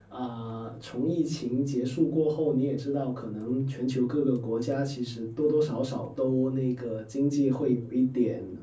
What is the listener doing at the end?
listening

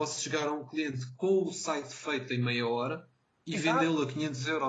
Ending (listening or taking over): listening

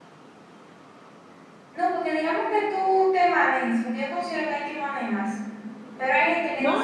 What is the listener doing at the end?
taking over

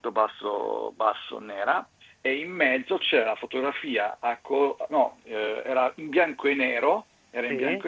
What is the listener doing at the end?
listening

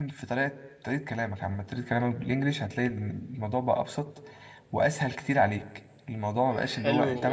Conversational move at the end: taking over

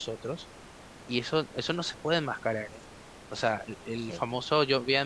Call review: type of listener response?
listening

